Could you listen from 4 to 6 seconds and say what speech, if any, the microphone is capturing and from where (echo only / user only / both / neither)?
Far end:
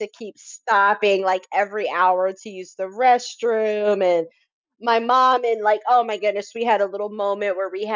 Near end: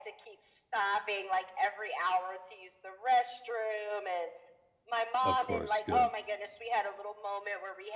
both